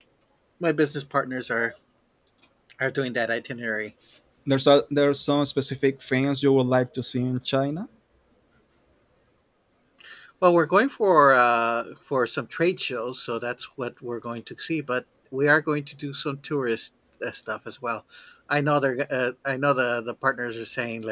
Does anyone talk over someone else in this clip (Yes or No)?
No